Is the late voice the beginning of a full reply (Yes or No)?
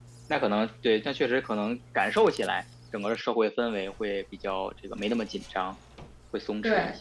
Yes